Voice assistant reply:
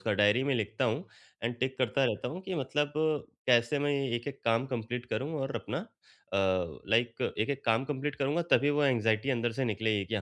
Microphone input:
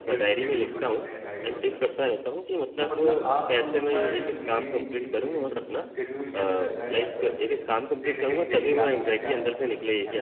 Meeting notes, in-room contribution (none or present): present